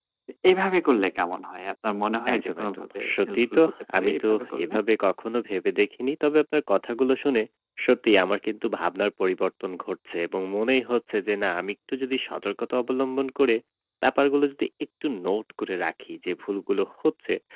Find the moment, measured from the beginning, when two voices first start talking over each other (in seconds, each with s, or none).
2.3 s